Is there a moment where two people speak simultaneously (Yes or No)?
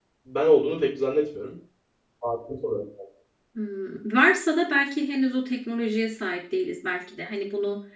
No